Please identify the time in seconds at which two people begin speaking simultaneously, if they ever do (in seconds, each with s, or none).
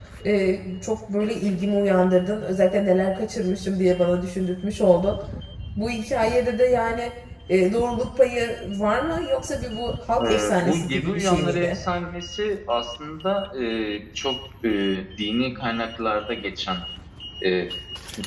10.2 s